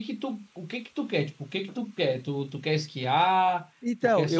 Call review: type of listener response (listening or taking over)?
taking over